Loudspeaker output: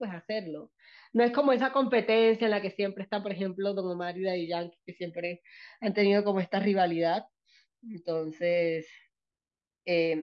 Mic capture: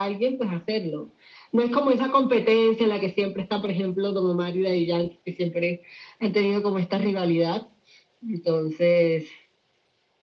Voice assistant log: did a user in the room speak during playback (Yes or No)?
No